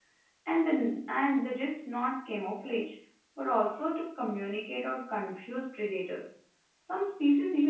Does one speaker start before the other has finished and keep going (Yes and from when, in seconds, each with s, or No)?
No